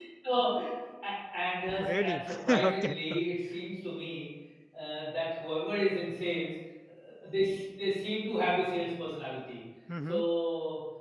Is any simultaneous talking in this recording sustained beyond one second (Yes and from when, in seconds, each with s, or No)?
Yes, from 1.8 s